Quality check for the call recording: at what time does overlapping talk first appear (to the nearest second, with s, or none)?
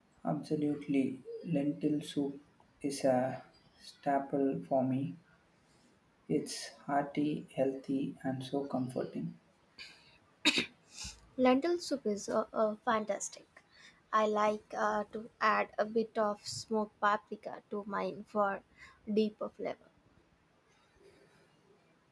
none